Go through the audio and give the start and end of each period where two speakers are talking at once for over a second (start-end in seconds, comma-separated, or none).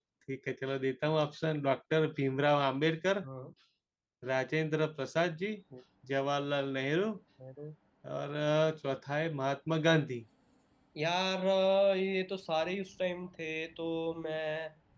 none